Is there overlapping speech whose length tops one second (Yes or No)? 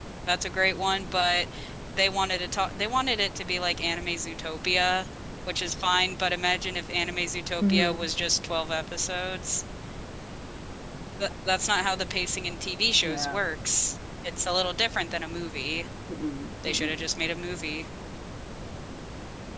No